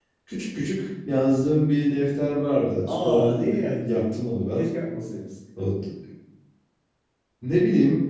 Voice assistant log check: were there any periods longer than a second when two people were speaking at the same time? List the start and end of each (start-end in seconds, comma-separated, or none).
2.8-4.1